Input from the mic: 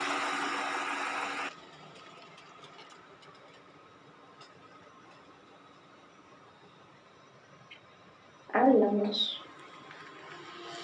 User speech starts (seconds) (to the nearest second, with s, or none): 9 s